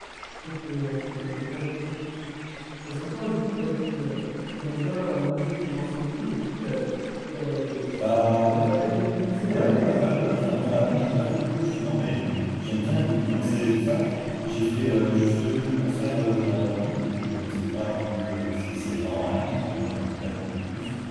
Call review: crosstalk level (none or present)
present